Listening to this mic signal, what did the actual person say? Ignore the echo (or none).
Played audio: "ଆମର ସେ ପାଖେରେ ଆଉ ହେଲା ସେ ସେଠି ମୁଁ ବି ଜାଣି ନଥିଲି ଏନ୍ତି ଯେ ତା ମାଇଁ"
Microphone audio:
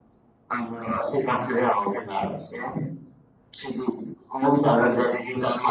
none